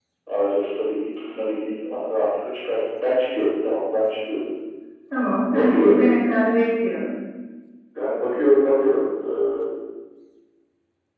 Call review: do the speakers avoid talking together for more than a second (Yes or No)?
Yes